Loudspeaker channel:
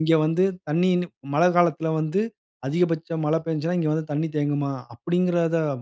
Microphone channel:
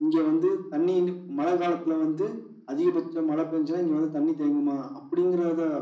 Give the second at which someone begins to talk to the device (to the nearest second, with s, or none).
none